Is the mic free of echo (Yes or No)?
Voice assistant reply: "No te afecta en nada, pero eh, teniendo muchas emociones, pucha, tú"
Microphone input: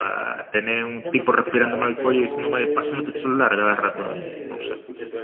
No